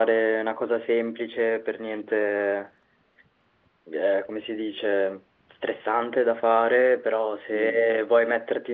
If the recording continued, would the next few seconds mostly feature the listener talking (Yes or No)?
No